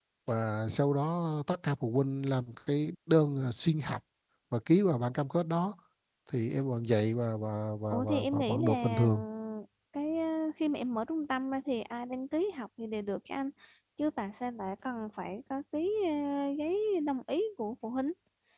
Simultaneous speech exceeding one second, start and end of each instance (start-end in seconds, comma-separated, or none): 7.9-9.1